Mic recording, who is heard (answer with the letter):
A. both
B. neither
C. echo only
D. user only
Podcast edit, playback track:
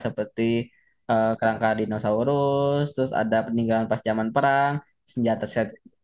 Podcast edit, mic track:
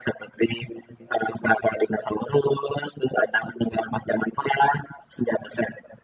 C